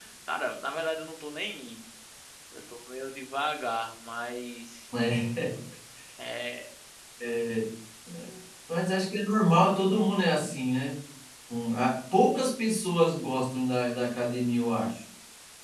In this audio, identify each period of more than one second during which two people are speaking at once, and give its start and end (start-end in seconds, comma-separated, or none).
none